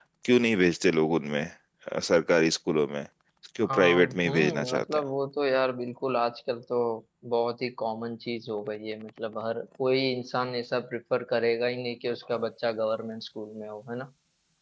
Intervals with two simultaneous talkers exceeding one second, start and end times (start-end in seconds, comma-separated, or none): 3.7-5.0